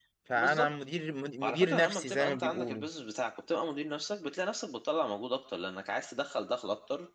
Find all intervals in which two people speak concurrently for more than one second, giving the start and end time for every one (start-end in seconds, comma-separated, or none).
1.4-2.8